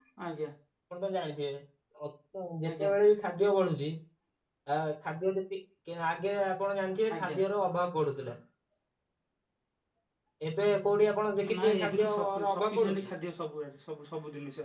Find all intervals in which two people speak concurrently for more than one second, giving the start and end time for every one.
11.6-13.1

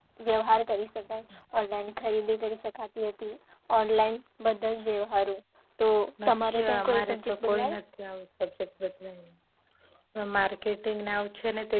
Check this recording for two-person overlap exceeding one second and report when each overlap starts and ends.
6.3-7.8

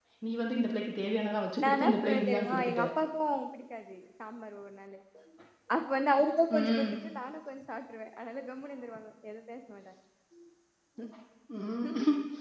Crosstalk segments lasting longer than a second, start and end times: 1.6-2.8

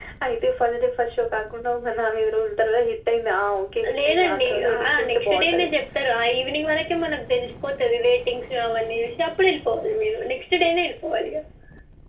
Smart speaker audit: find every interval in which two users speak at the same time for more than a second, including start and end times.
4.0-5.7

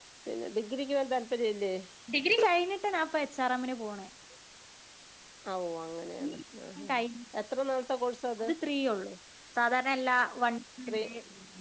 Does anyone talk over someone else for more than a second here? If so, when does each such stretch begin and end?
none

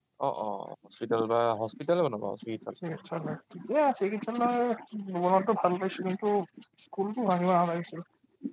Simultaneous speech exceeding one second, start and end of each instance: none

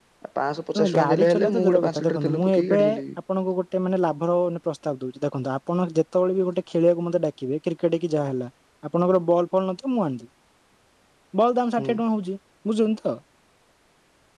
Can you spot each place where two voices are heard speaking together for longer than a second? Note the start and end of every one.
0.8-2.8

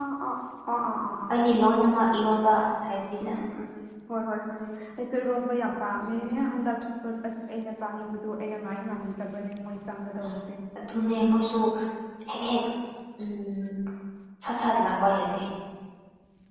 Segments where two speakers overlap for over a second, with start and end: none

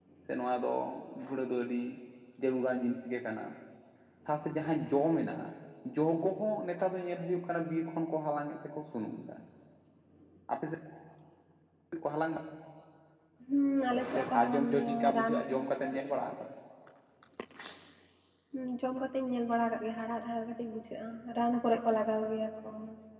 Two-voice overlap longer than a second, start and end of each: 14.1-15.4

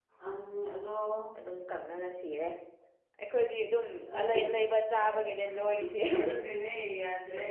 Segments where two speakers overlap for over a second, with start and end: none

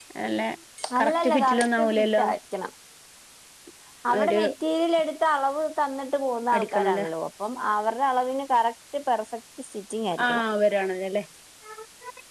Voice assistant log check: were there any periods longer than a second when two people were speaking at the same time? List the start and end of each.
1.0-2.2

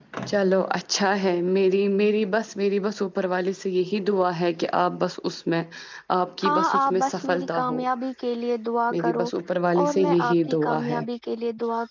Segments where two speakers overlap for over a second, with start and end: 6.4-7.8, 9.8-11.0

